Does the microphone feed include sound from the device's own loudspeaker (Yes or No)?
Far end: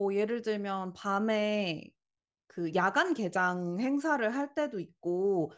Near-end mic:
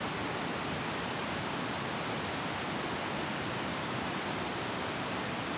No